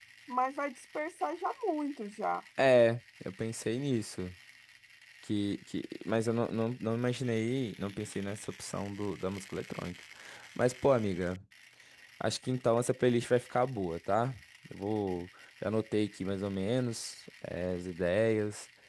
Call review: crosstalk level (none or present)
none